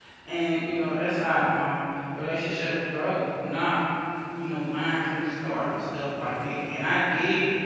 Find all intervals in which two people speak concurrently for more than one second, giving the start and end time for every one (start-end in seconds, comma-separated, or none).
none